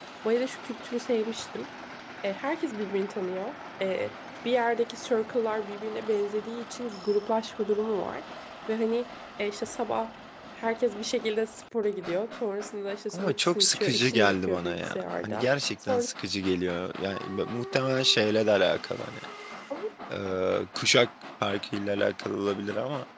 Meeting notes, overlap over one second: present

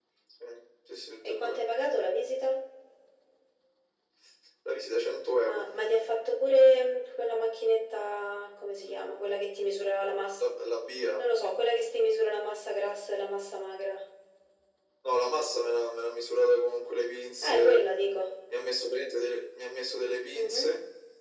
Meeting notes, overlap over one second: none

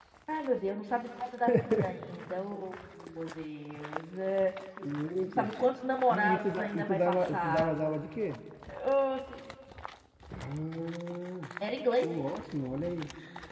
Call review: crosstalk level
present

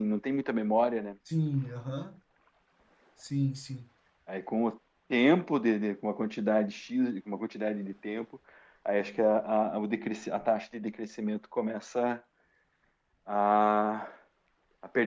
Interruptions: none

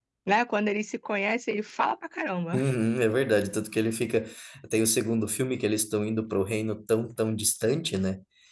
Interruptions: none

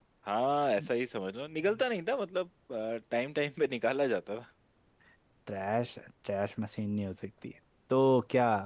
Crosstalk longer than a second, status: none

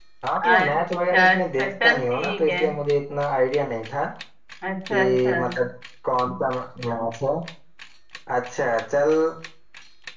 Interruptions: present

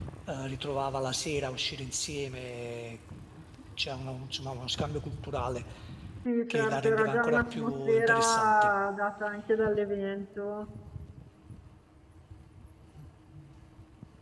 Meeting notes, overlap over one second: present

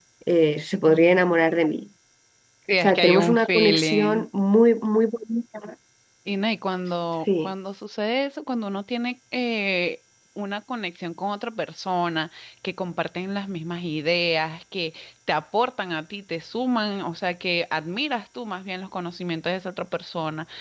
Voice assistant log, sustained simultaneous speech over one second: present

